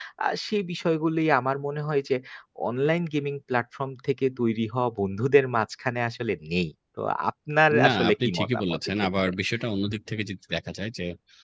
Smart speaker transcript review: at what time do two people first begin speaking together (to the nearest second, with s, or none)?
8 s